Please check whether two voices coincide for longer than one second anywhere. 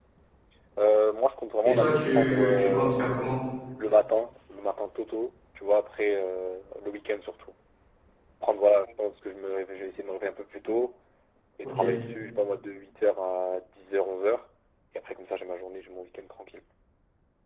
Yes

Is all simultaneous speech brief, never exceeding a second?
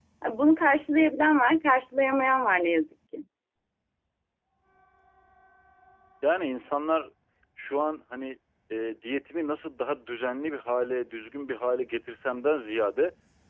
Yes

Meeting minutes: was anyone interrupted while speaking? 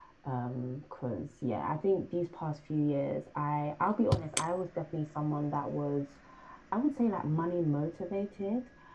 No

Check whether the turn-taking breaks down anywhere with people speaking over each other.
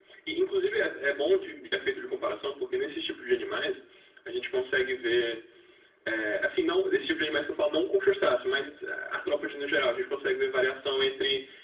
No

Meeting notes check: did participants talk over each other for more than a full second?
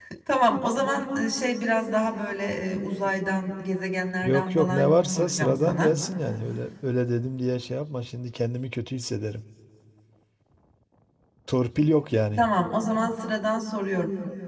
Yes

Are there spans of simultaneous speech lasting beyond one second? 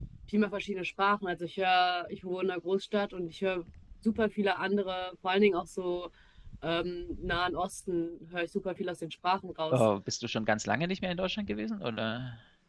No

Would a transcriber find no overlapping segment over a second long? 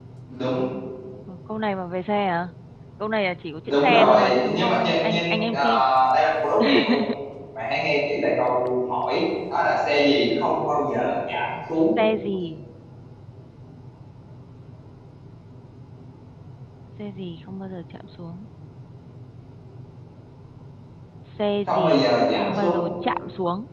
No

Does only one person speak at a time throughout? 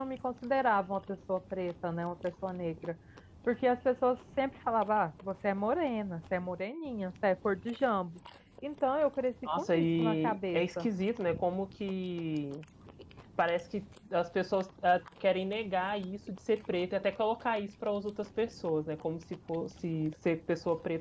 No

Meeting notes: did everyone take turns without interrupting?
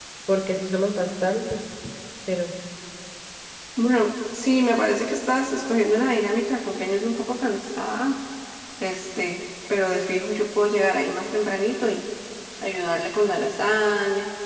Yes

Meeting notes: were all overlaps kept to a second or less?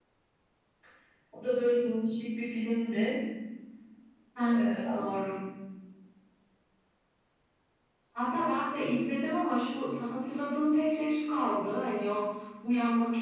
Yes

